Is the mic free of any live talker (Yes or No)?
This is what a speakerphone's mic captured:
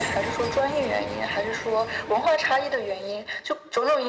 Yes